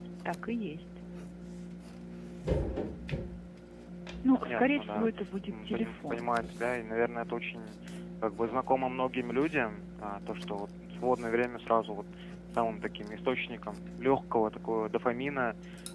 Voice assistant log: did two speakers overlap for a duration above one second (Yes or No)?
Yes